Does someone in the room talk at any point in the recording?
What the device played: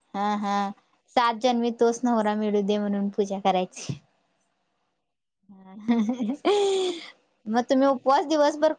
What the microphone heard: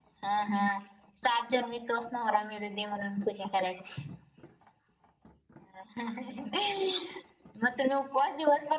No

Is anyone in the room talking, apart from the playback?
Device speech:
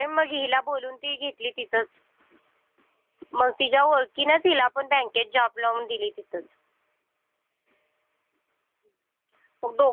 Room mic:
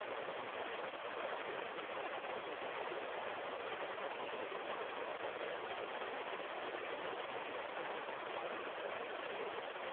No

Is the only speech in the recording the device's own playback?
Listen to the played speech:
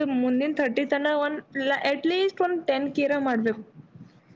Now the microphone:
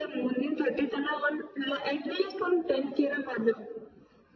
Yes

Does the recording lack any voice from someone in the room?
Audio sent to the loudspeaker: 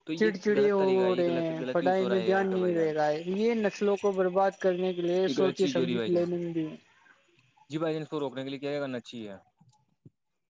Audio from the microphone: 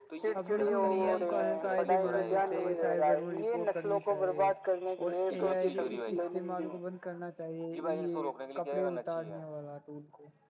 No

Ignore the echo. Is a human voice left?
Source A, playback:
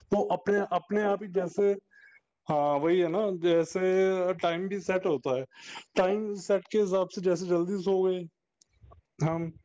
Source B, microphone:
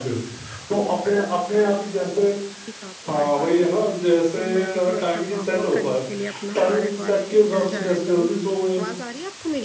Yes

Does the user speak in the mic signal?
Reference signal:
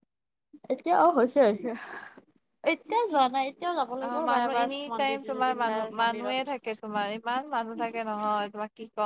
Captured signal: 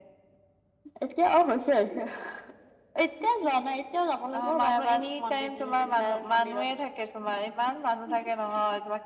No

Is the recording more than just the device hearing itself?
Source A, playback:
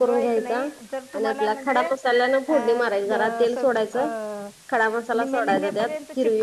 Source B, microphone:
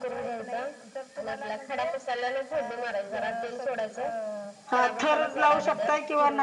Yes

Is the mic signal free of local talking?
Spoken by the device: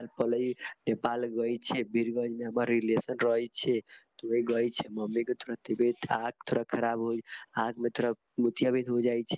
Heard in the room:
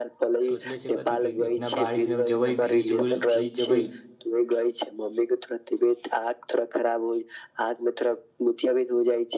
No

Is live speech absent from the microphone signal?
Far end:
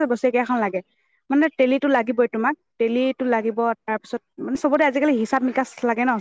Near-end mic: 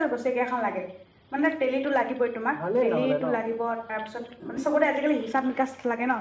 No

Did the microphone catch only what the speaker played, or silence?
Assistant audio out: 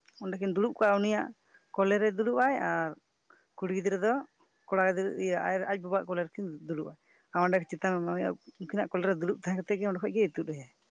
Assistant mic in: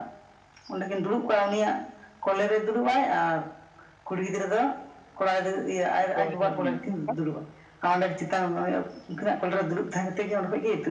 No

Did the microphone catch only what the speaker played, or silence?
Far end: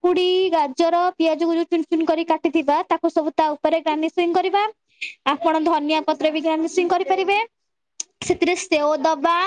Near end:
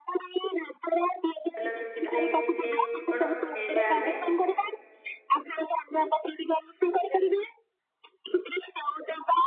No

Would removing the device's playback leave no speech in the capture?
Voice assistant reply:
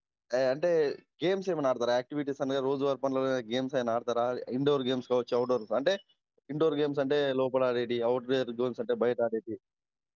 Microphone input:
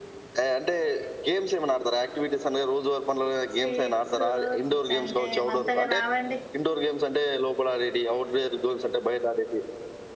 No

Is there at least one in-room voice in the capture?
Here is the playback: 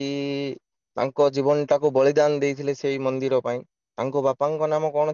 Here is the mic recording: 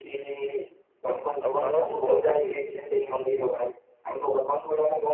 Yes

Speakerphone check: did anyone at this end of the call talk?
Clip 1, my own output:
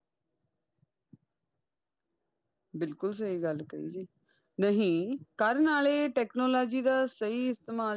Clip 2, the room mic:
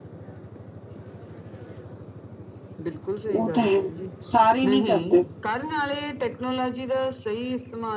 Yes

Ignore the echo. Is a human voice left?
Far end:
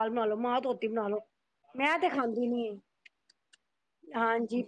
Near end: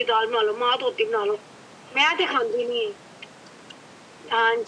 No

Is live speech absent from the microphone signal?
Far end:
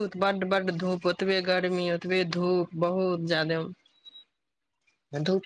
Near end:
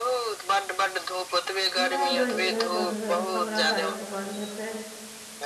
No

